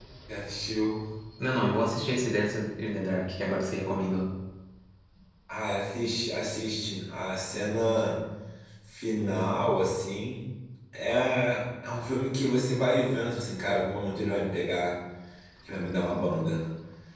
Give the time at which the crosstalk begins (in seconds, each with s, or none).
none